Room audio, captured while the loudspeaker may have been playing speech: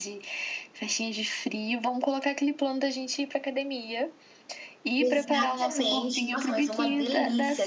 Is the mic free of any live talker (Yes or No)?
No